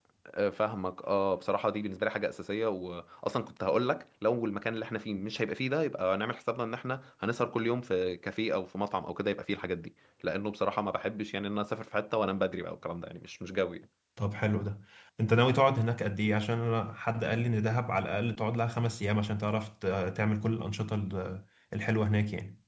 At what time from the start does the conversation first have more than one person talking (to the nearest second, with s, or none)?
none